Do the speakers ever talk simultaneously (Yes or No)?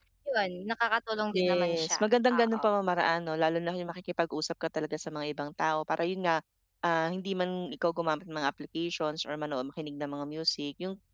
Yes